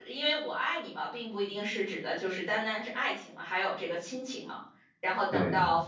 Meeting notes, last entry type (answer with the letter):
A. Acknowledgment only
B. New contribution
A